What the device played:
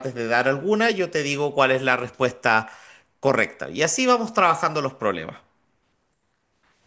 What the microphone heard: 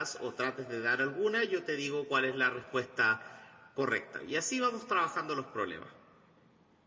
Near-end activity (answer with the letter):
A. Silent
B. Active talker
A